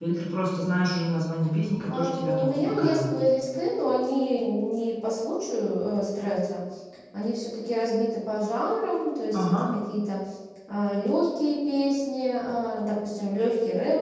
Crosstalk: present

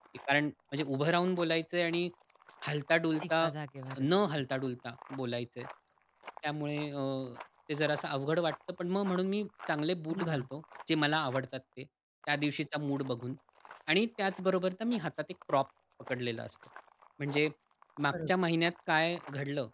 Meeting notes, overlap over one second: none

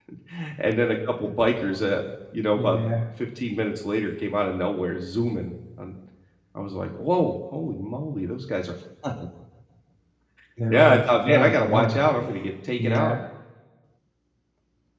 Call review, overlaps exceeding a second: present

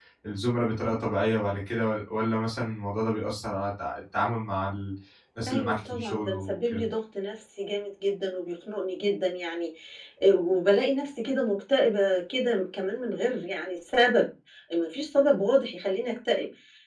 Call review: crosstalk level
present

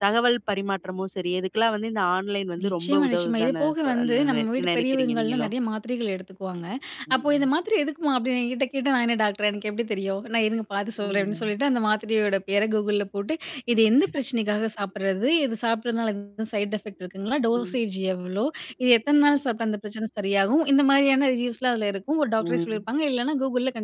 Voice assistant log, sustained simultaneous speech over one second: present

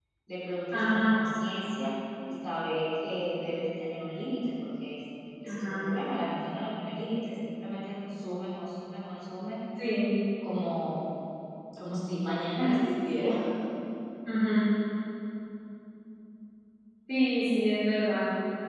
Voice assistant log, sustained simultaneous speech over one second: none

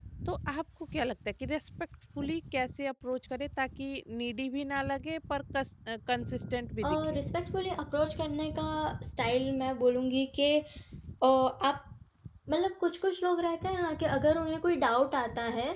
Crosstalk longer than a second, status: none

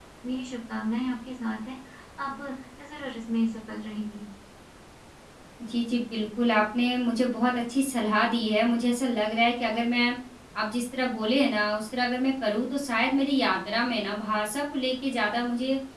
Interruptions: none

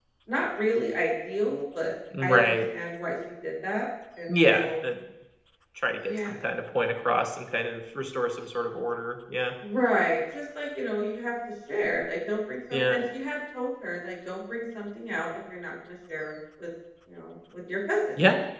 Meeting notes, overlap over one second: none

